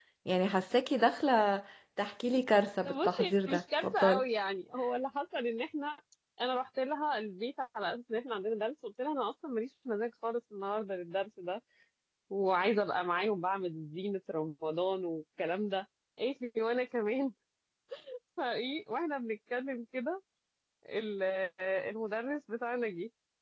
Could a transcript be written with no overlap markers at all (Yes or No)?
No